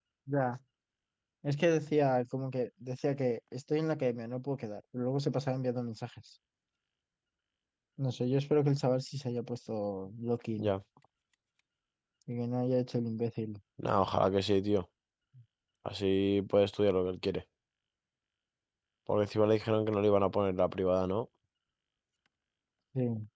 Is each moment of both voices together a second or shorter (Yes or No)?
Yes